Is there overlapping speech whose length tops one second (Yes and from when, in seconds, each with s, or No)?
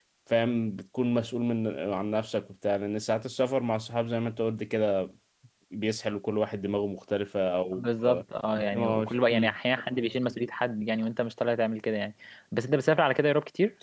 No